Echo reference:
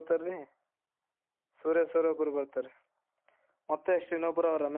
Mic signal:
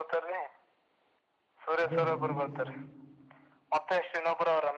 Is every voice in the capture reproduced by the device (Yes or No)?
No